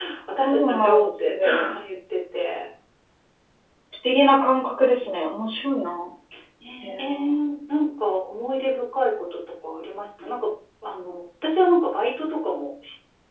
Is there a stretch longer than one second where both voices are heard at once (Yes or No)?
Yes